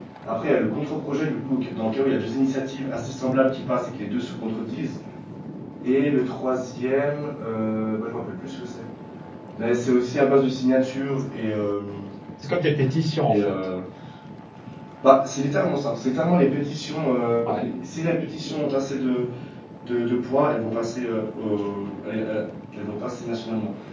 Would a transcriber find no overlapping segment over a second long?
Yes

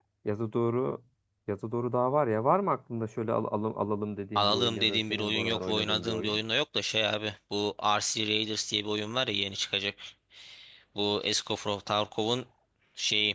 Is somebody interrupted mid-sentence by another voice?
Yes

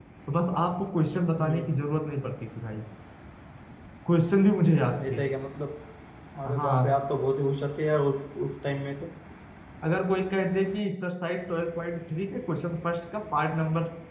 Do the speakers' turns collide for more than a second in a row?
No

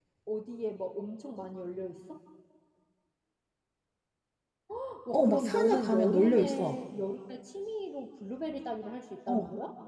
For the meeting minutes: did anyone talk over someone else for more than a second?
Yes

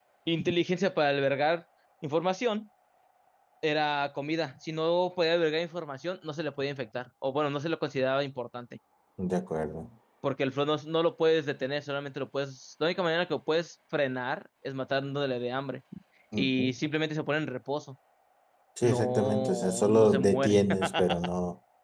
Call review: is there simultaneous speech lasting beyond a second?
Yes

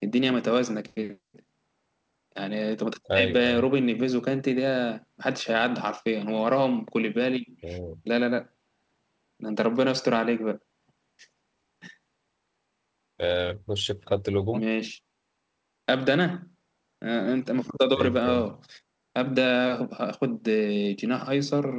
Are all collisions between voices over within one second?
Yes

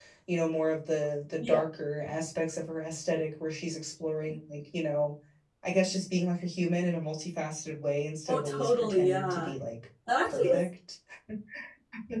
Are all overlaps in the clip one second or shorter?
No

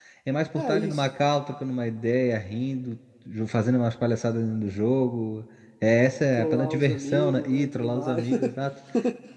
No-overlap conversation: No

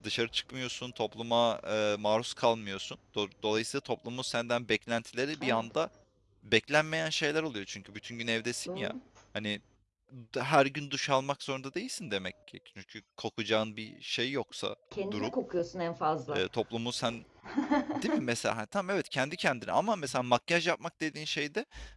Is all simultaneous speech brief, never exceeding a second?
Yes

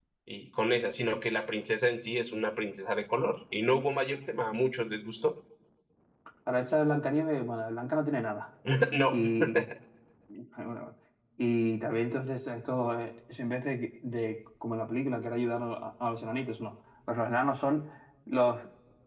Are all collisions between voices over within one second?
Yes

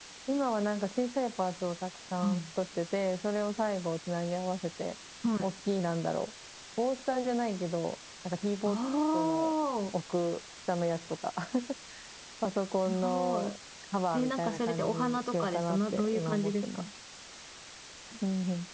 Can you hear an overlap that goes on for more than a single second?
Yes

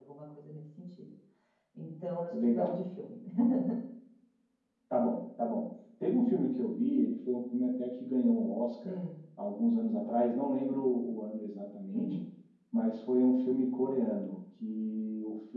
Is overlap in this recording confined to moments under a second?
Yes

